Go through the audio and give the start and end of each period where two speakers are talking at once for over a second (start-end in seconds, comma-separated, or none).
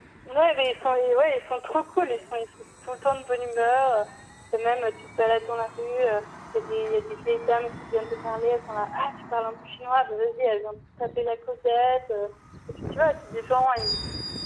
none